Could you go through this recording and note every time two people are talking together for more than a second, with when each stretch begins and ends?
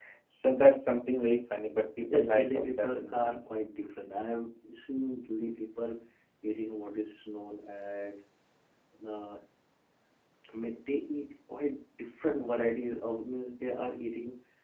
2.1-3.4

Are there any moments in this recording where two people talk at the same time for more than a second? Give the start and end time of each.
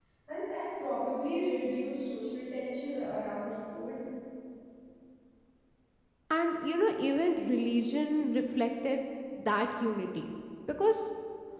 none

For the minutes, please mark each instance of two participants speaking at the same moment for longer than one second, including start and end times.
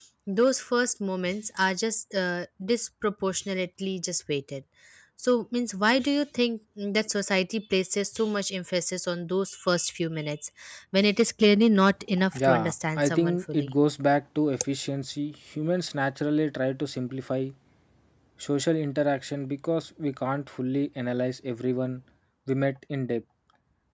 12.4-13.7

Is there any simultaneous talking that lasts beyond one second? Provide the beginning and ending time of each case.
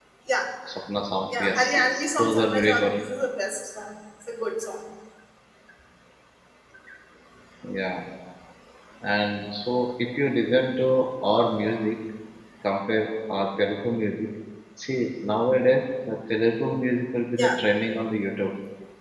1.3-2.9

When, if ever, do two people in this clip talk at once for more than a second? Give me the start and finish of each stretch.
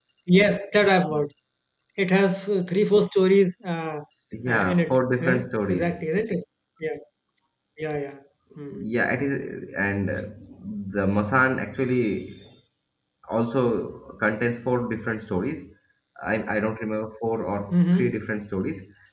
4.5-5.8

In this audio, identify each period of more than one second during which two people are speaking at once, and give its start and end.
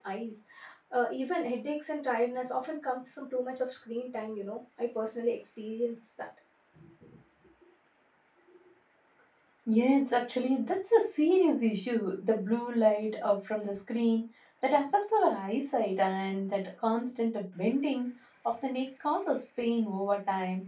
none

